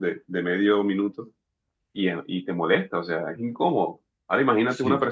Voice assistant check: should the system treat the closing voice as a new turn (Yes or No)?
No